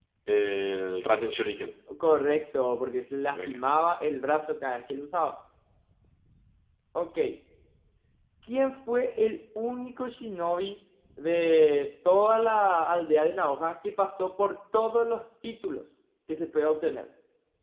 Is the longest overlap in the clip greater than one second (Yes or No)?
No